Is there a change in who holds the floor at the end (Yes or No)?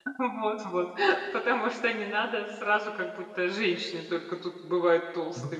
Yes